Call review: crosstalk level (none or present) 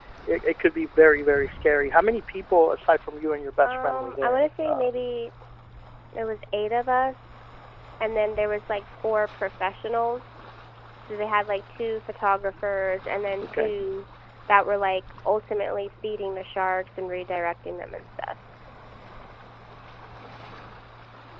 present